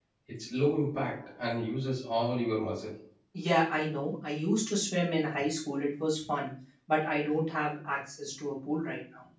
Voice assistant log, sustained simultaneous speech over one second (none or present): none